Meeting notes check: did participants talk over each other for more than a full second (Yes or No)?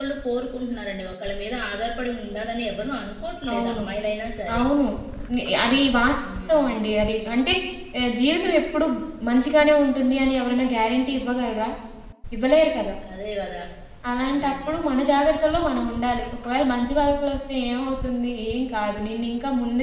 No